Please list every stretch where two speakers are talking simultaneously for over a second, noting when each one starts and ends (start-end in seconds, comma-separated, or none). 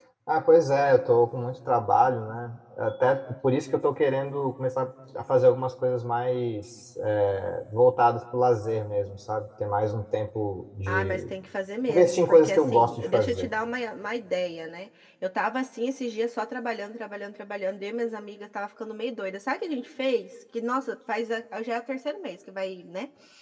11.9-13.5